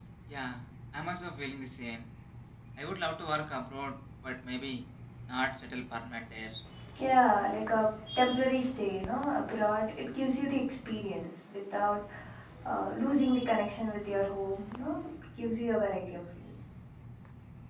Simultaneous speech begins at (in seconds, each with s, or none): none